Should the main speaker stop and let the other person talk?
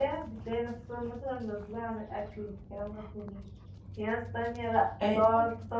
No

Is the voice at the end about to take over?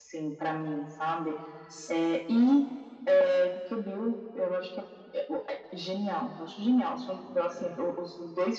No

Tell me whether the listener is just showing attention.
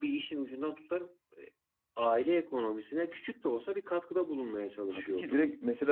No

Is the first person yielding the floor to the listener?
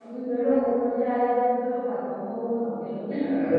Yes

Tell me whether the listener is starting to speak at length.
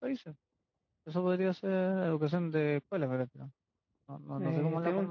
Yes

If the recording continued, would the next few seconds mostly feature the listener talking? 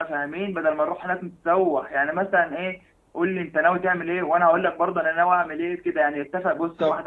No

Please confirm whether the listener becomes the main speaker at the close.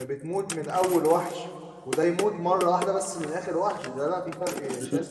Yes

